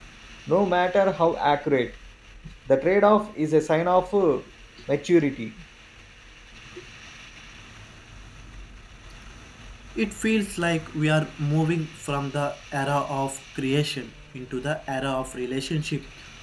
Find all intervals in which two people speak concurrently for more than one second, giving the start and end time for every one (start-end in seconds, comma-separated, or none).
none